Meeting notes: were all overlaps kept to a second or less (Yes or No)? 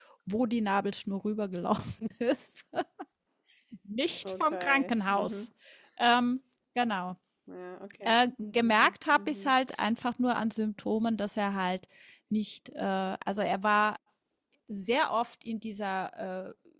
No